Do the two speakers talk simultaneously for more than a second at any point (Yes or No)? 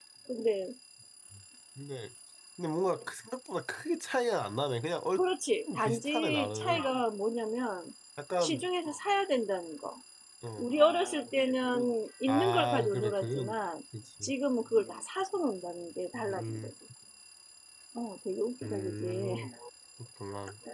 Yes